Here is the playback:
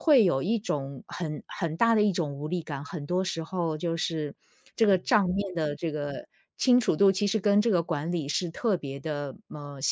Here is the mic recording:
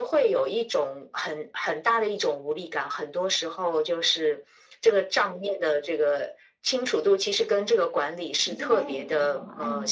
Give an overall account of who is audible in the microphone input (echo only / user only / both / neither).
both